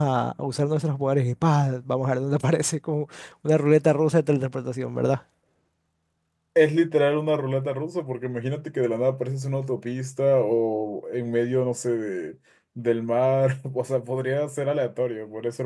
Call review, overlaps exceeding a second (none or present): none